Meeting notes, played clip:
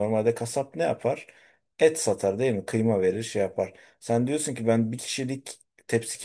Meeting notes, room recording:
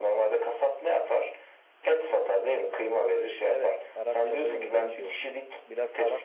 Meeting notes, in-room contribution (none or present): present